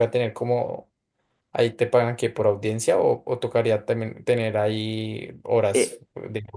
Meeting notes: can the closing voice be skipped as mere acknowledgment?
No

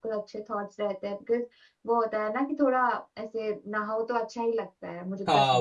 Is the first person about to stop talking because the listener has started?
Yes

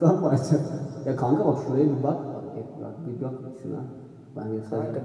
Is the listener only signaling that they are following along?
No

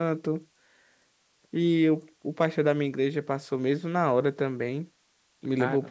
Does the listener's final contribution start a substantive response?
No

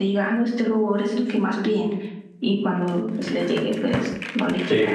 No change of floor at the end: No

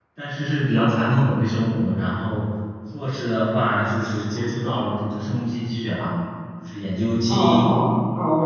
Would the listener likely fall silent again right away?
No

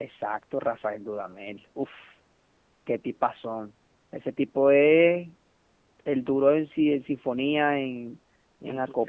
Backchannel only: Yes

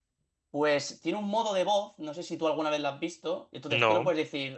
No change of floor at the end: Yes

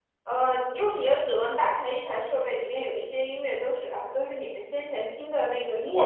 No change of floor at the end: No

